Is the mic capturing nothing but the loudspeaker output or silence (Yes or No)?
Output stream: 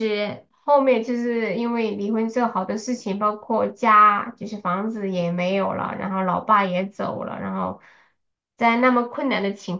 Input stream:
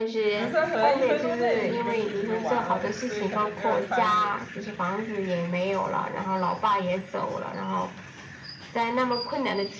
No